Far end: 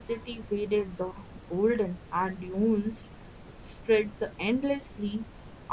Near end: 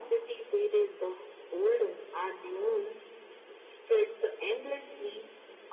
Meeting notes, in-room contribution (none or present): none